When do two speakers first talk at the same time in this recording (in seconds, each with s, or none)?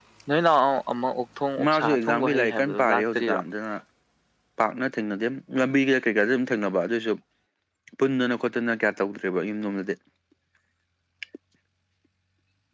1.6 s